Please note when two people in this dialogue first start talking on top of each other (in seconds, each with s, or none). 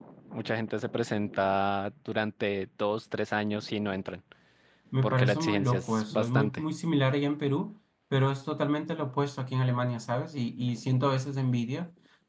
5.0 s